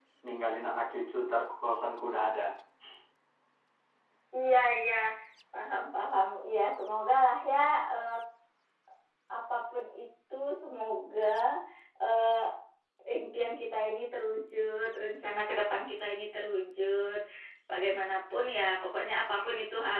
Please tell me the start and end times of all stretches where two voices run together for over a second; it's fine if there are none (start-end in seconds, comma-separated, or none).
none